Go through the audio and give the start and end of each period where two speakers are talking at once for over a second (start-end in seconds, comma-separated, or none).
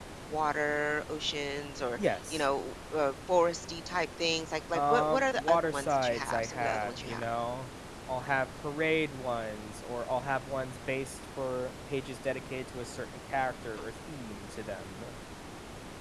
4.7-7.3